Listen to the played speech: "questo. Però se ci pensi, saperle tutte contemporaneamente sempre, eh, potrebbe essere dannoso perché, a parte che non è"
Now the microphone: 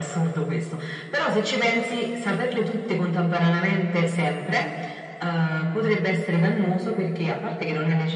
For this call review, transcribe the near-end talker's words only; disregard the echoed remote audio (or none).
none